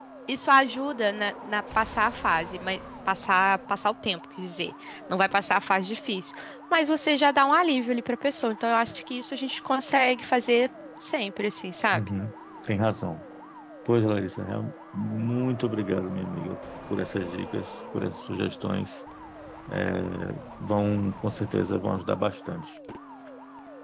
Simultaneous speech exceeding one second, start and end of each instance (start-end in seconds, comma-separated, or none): none